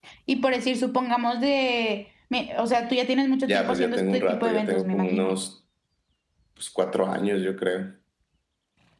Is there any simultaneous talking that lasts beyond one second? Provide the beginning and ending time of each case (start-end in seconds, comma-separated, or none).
3.5-5.4